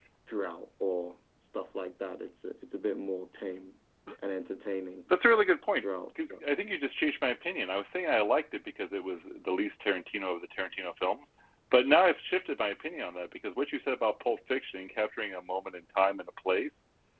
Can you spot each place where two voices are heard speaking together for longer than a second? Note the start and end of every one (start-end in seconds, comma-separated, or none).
none